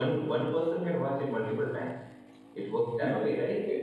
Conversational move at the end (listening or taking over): taking over